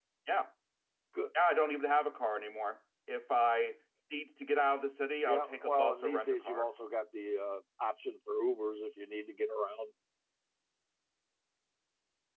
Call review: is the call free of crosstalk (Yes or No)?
No